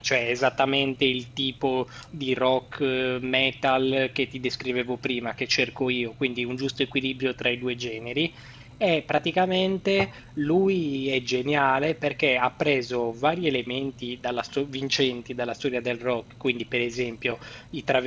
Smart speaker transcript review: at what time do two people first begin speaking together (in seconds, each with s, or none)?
none